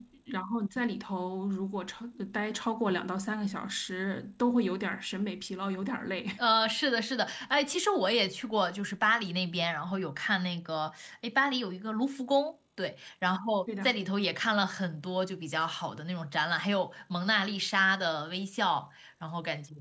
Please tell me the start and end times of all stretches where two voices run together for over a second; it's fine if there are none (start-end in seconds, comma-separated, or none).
none